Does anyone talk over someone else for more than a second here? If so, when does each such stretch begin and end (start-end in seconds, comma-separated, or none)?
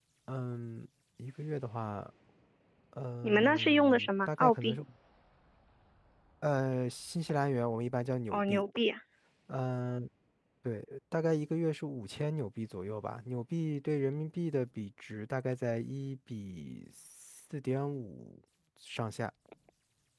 3.2-4.8